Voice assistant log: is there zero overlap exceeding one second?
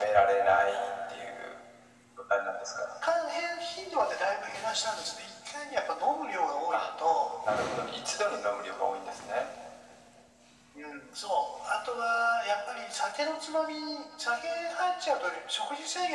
Yes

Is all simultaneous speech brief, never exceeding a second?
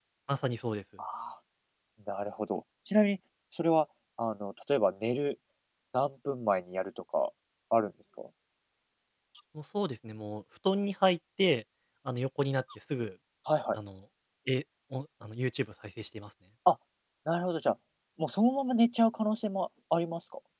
Yes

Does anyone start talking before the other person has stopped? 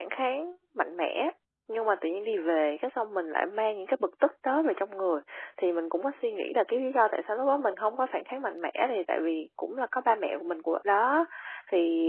No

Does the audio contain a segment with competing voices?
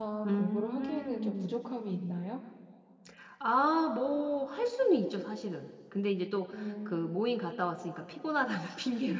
Yes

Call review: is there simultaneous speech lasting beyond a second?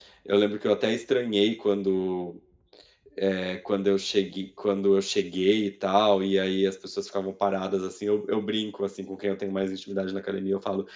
No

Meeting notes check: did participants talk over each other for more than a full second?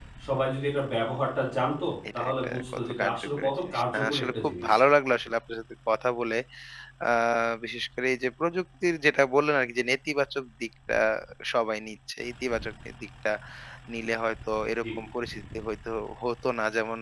Yes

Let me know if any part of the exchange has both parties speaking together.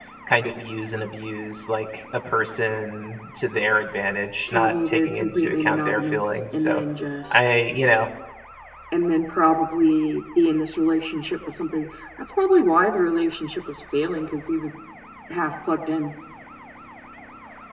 Yes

